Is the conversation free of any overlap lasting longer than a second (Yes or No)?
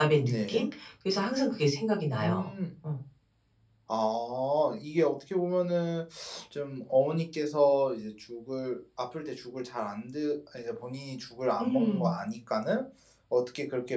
Yes